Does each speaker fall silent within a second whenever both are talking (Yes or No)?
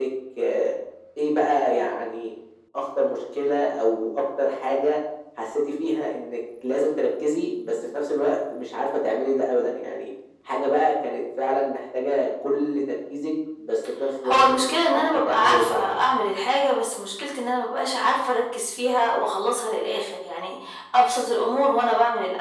No